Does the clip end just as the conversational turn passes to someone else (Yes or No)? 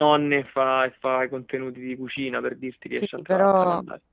Yes